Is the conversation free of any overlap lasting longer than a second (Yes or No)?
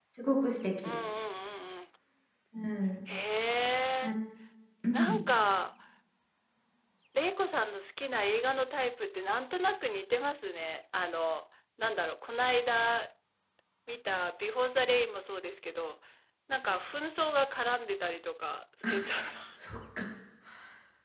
Yes